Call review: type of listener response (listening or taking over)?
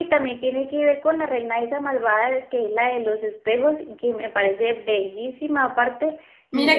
taking over